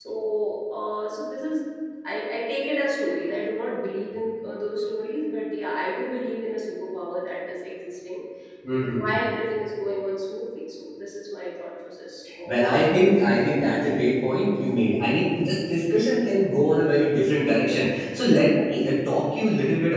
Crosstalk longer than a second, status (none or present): none